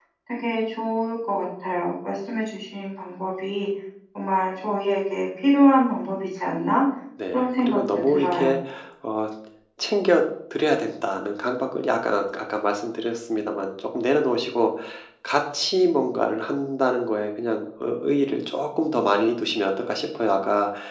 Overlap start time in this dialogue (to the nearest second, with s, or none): 7 s